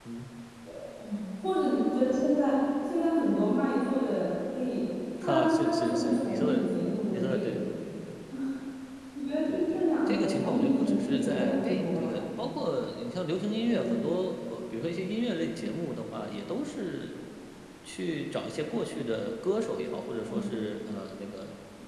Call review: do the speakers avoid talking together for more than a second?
No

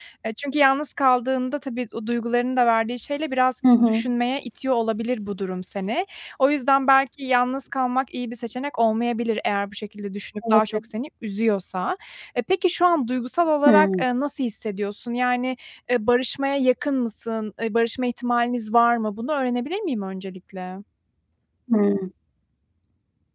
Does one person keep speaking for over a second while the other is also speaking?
No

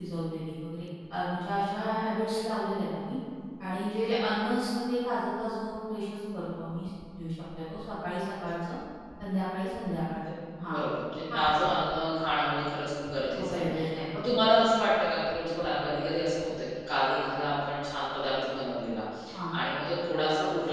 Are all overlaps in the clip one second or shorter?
Yes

